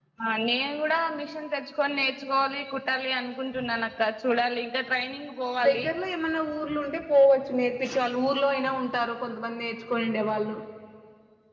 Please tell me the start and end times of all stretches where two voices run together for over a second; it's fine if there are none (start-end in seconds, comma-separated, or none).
none